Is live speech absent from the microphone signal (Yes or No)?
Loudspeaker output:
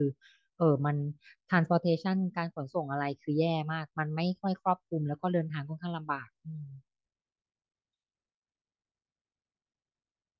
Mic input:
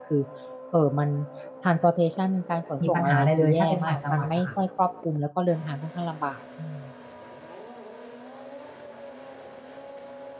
No